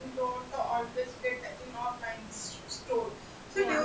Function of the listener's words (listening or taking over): listening